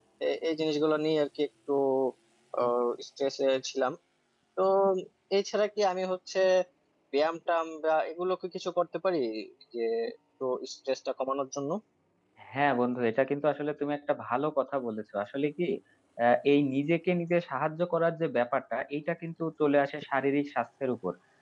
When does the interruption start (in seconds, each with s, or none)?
none